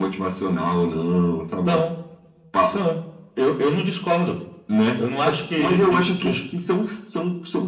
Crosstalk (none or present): present